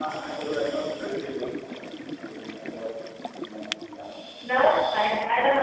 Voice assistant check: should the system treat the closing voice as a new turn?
Yes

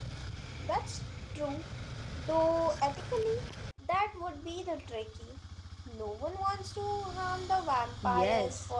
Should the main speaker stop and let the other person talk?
Yes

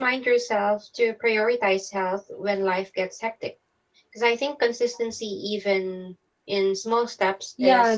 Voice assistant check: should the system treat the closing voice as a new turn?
Yes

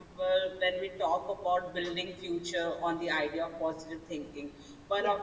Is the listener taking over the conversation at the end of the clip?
No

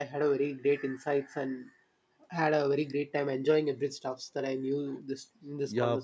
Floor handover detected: Yes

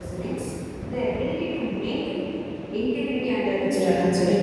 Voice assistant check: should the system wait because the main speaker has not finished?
No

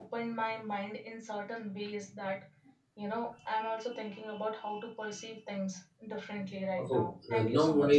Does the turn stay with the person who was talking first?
No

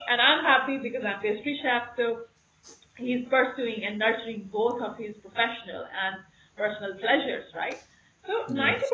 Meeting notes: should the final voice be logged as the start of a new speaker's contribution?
No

